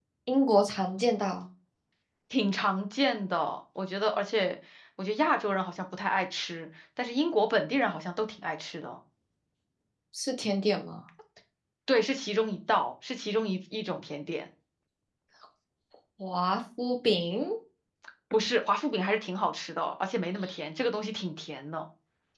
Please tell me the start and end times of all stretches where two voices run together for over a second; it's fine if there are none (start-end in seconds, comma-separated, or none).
none